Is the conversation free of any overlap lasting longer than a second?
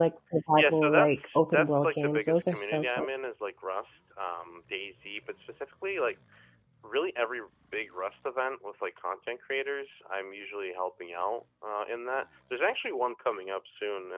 No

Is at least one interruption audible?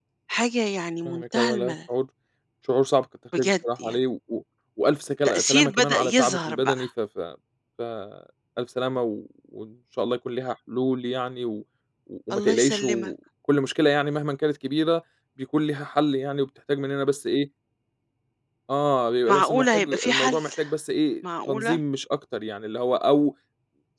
Yes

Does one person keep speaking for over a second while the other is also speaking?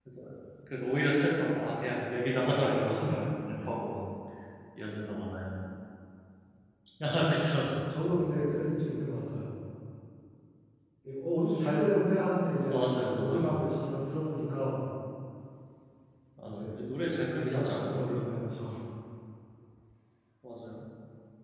Yes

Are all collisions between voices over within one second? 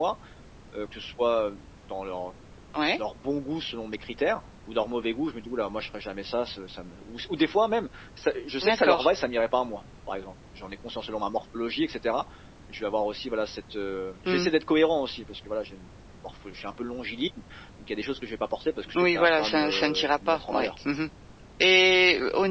No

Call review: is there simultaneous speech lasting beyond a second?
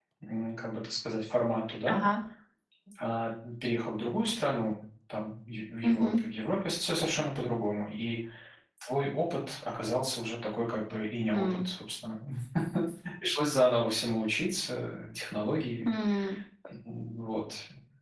No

